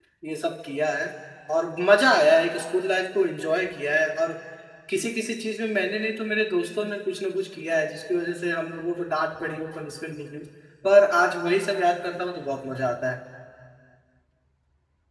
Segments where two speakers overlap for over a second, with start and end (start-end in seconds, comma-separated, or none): none